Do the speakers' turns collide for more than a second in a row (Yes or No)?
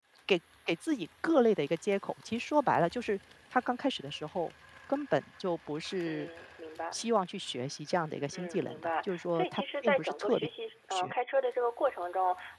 Yes